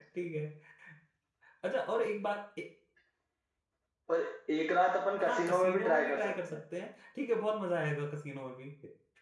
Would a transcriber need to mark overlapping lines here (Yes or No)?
Yes